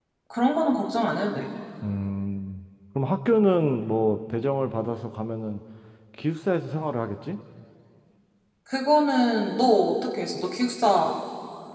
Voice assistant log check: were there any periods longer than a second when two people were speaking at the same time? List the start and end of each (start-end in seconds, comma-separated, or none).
none